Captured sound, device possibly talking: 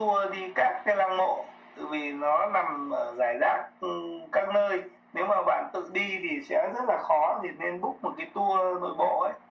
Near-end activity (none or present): none